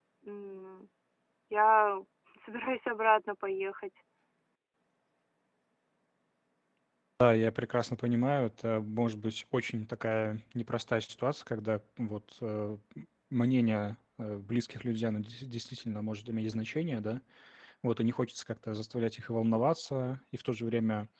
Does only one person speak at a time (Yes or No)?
Yes